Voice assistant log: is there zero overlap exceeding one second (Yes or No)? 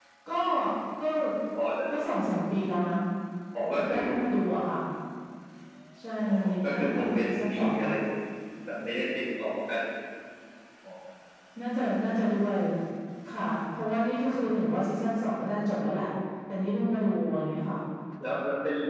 No